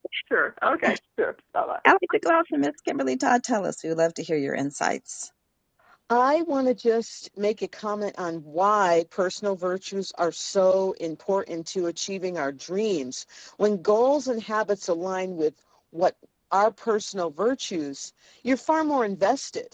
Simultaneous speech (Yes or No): No